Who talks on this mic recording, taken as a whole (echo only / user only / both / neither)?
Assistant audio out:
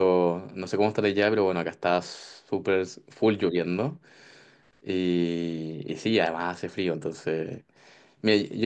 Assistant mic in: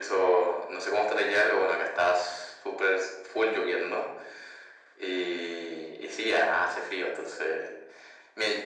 echo only